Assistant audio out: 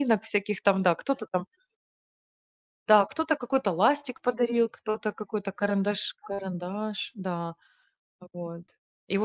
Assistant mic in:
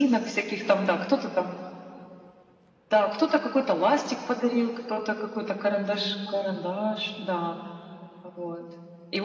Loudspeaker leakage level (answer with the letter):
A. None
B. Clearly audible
B